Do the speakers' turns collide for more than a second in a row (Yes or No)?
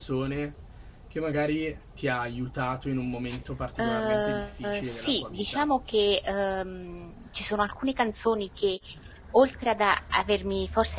Yes